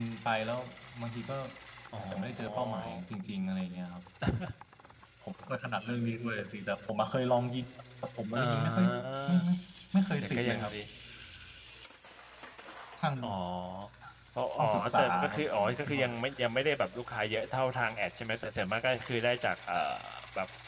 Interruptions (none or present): present